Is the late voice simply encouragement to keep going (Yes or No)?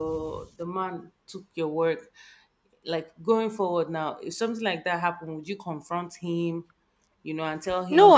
No